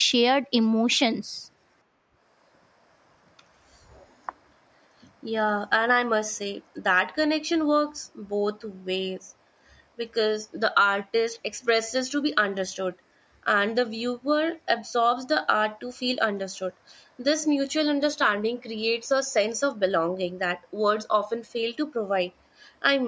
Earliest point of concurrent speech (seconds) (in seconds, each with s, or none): none